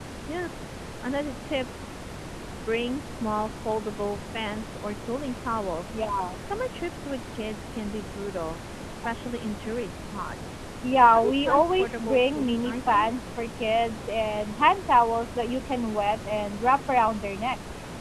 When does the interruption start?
11.1 s

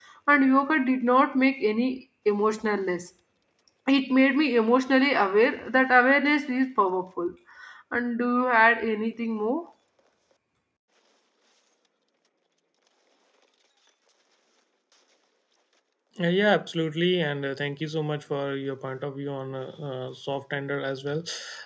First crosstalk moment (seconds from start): none

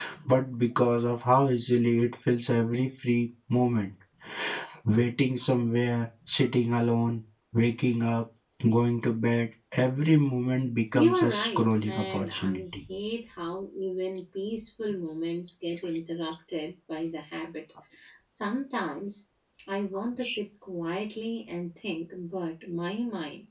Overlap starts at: 10.9 s

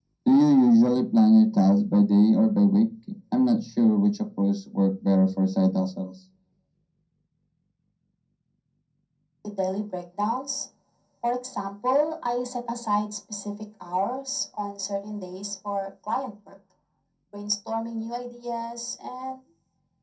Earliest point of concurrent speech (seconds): none

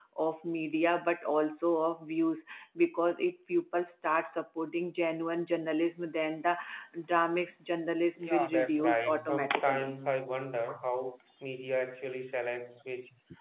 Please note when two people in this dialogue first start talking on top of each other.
8.2 s

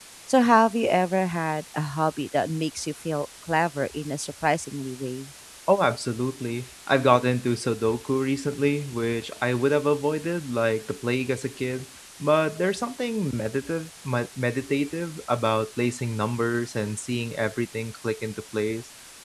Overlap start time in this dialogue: none

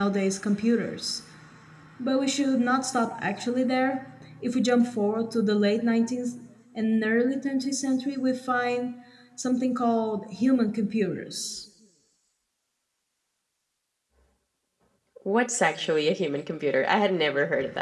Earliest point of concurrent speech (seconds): none

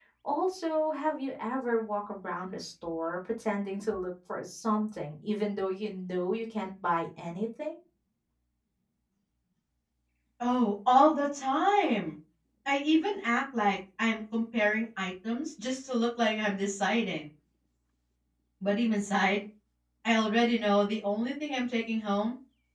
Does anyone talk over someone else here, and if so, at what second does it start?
none

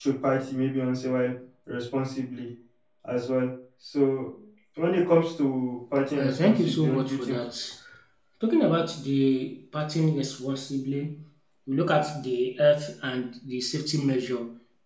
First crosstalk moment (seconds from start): 6.1 s

